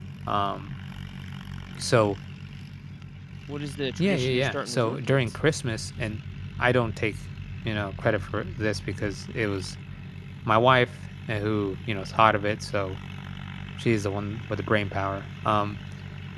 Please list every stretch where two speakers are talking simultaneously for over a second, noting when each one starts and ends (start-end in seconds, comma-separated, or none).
4.0-5.2